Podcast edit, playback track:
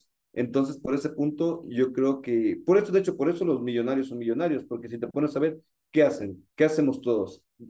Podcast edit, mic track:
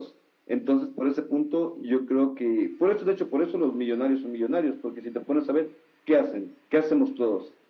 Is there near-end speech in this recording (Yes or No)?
No